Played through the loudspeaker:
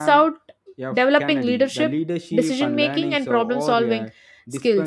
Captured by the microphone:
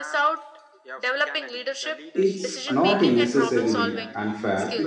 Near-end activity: present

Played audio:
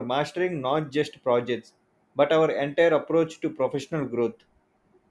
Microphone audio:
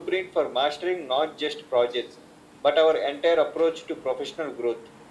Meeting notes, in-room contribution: none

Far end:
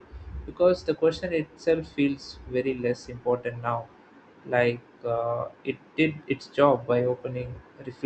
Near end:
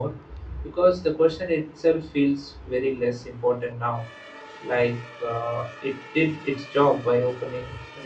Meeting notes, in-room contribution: none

